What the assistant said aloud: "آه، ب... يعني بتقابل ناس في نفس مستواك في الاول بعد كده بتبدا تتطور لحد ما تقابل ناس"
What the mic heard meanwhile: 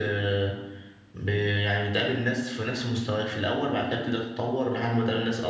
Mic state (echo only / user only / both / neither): echo only